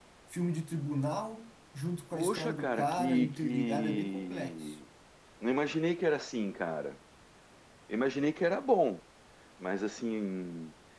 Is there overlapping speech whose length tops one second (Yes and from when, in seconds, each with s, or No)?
Yes, from 2.1 s